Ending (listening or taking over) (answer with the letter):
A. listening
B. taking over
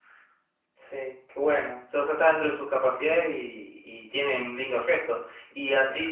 A